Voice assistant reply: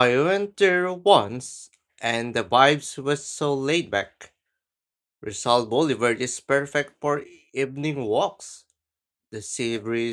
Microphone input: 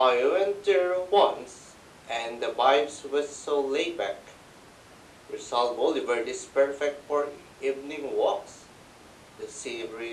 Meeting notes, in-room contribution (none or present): none